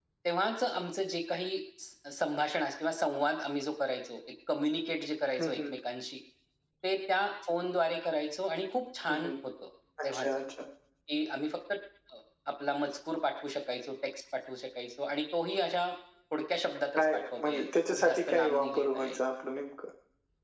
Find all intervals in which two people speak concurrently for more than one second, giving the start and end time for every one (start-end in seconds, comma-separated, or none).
17.0-19.2